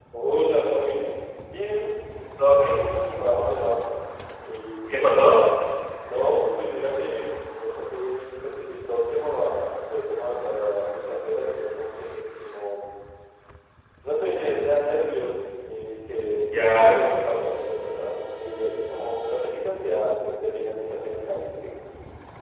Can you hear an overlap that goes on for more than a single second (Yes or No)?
No